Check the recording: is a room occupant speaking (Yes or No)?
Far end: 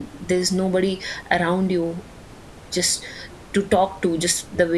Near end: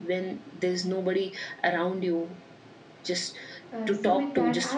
Yes